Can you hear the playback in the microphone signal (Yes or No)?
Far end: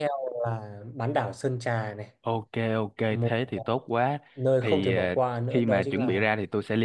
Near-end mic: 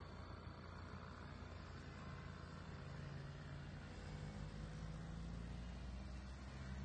No